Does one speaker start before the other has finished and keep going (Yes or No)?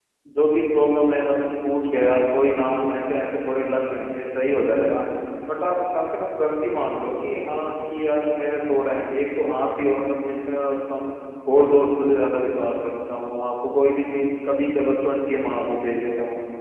No